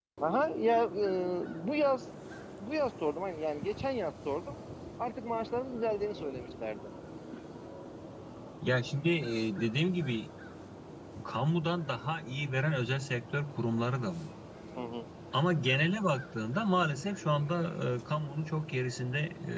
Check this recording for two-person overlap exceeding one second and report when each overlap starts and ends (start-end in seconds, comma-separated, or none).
none